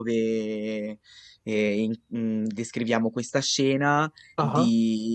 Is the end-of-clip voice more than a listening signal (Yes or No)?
No